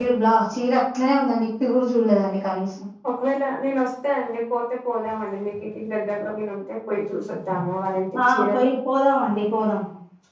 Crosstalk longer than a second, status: none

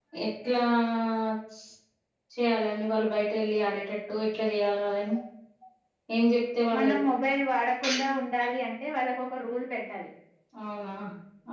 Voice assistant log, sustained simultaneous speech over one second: none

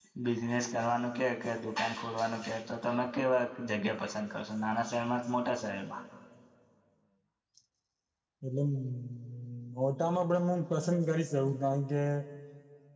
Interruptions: none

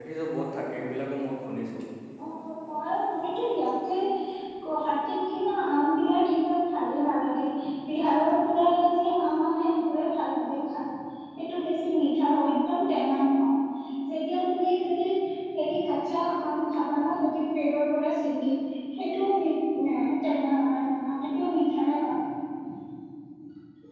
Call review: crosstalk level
none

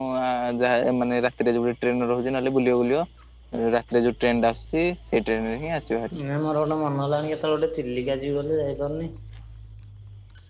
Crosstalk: none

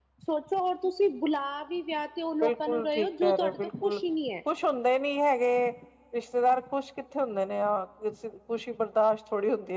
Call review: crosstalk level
present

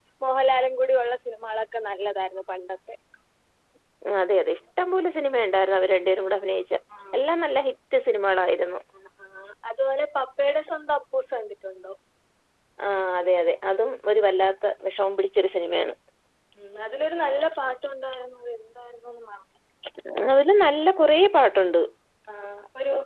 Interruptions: none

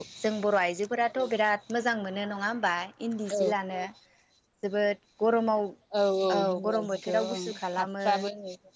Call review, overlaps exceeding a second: present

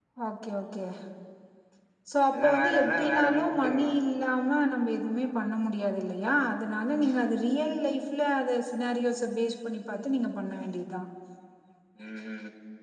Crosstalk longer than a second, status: present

